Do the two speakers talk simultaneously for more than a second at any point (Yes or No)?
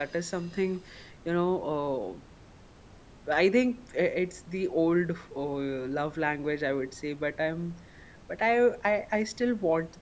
No